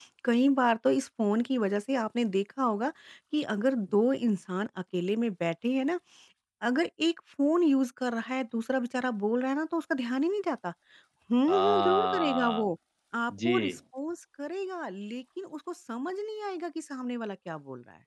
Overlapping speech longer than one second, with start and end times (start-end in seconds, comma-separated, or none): 11.5-12.7